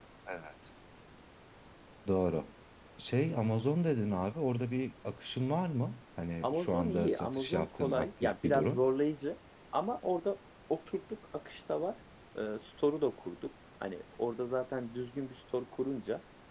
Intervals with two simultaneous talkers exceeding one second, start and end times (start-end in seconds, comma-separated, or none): 6.4-8.8